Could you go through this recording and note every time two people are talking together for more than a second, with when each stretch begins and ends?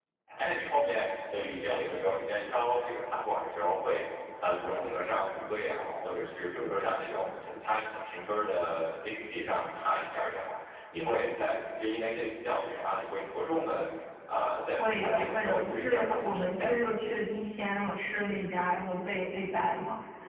14.8-16.8

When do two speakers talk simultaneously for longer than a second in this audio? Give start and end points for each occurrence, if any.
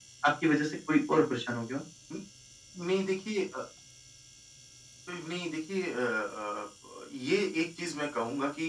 none

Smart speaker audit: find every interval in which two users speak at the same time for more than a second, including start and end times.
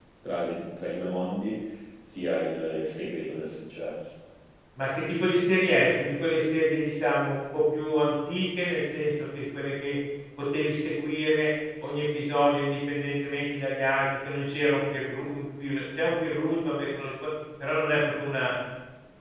none

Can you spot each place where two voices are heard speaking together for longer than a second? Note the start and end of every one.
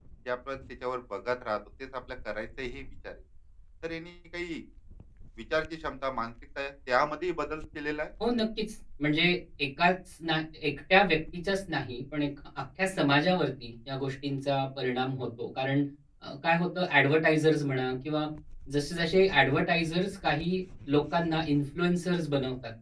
none

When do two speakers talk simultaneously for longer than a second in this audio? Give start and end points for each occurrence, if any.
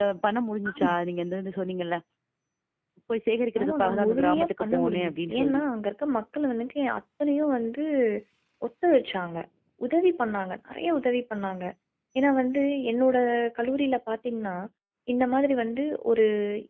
3.6-5.6

